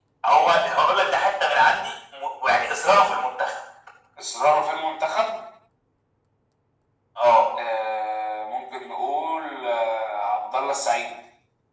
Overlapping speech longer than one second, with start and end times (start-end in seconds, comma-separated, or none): none